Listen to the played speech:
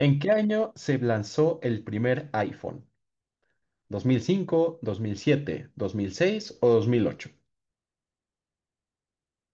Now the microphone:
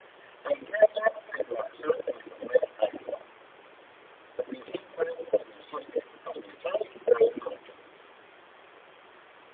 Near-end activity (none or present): none